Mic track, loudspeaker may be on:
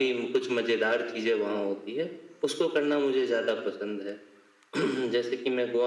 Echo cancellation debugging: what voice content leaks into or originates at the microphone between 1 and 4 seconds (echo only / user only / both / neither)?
echo only